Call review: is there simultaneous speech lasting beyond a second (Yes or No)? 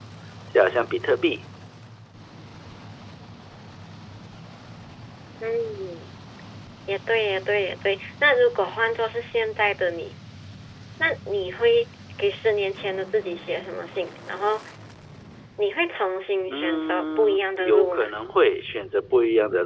Yes